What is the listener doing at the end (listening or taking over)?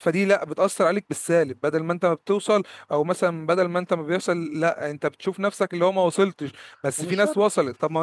listening